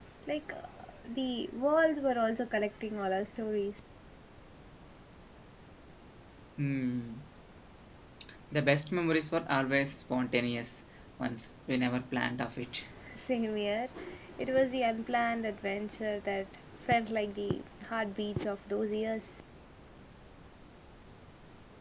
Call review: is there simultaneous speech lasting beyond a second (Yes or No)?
No